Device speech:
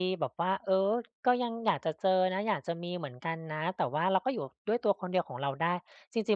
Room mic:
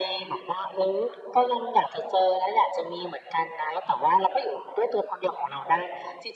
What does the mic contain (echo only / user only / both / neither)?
echo only